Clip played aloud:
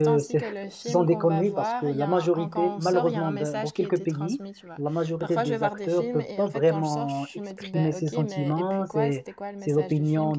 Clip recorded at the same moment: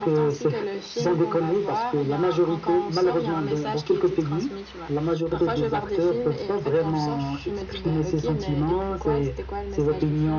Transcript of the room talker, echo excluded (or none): none